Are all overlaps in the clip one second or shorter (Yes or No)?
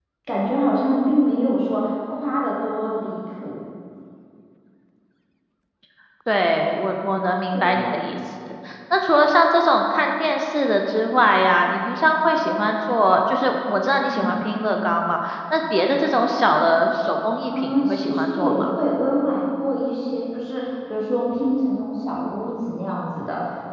No